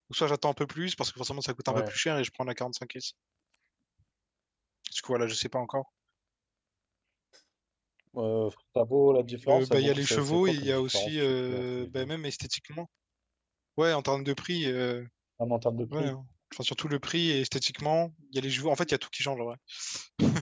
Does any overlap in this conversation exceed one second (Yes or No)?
Yes